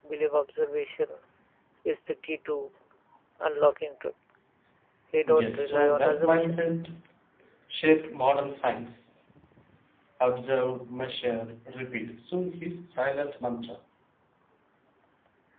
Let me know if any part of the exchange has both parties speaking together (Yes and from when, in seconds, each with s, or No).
Yes, from 5.3 s